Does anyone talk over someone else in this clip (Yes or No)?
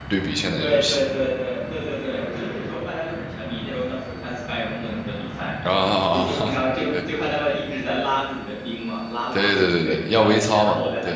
Yes